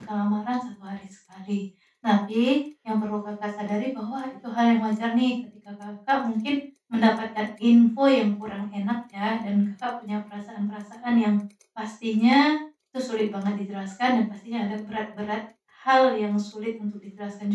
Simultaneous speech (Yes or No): No